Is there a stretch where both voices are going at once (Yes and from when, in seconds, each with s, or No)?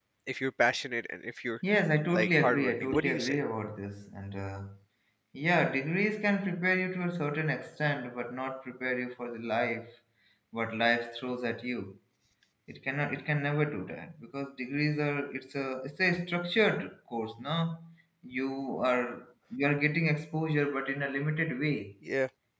Yes, from 2.1 s